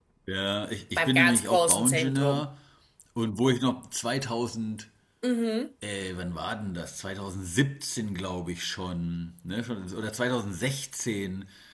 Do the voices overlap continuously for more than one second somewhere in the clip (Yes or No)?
Yes